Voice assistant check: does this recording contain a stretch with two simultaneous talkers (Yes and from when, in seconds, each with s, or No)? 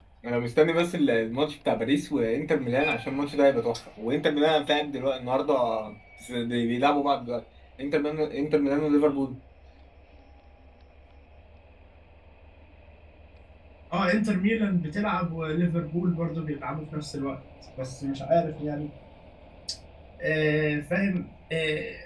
No